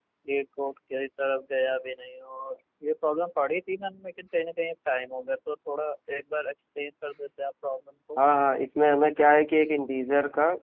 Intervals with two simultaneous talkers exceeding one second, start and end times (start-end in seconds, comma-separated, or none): none